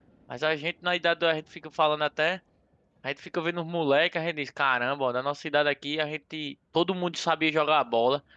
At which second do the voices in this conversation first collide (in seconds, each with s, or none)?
none